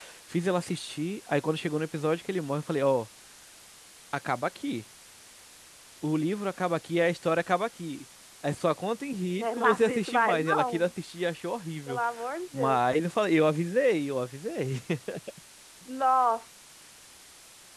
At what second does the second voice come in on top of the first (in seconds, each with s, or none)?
9.4 s